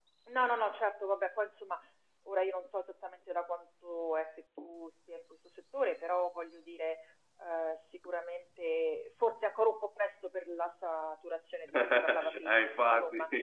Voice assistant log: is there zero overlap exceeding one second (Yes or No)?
No